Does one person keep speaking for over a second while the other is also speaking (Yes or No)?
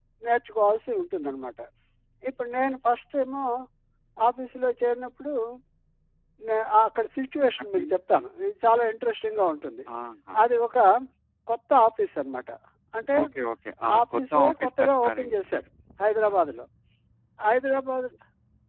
Yes